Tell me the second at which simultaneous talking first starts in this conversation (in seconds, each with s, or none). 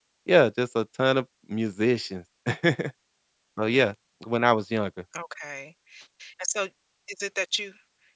none